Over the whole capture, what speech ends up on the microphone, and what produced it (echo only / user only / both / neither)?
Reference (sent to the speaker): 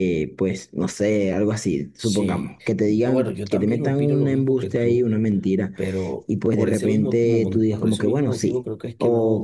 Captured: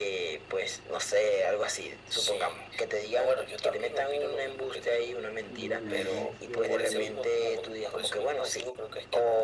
both